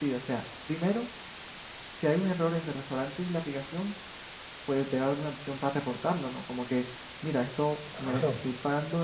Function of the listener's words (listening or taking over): listening